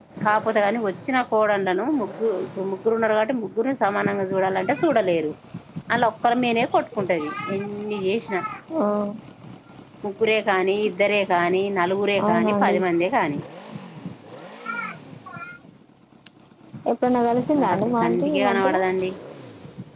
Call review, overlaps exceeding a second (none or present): present